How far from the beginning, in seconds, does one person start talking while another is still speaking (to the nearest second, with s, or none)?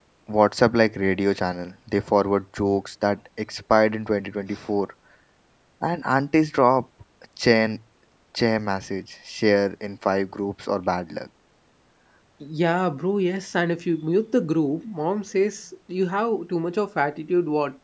none